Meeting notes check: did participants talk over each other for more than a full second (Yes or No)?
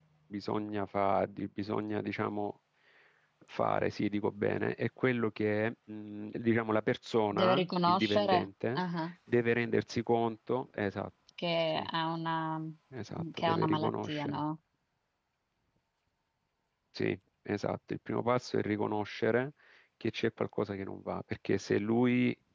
Yes